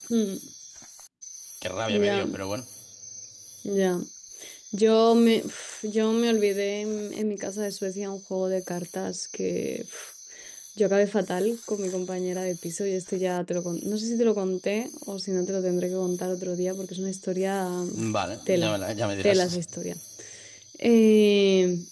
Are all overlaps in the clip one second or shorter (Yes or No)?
Yes